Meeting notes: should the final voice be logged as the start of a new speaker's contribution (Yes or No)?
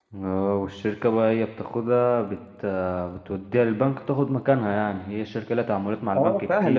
Yes